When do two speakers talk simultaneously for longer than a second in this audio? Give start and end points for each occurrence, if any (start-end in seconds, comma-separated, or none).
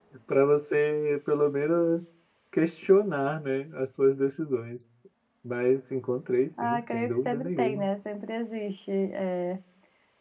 6.6-7.9